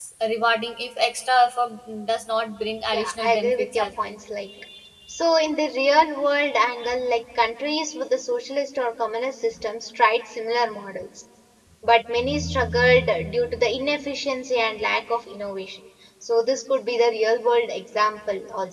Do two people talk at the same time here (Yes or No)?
Yes